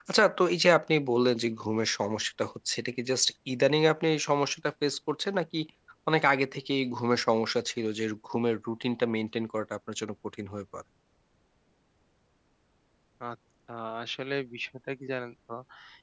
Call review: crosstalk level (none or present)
none